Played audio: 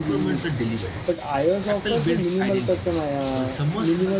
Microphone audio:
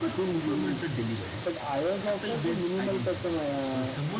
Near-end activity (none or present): none